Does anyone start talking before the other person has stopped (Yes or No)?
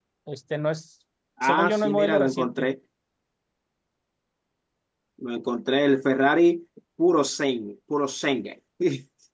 Yes